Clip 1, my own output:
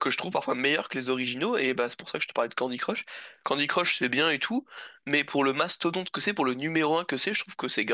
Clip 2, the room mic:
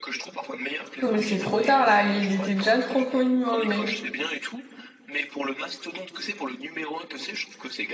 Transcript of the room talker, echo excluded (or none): Mais c'est trop tard, là. Il était déjà trop connu, hein, le mec.